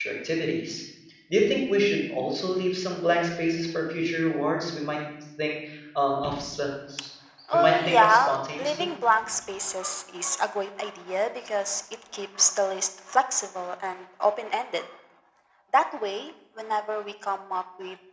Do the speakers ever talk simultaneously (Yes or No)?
Yes